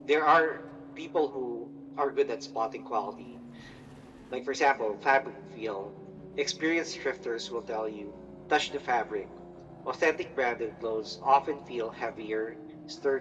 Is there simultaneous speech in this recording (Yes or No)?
No